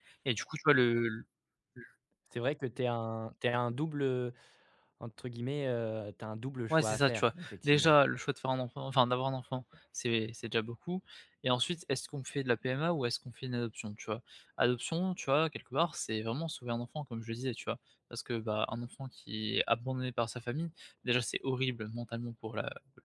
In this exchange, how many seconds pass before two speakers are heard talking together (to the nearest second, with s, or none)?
7 s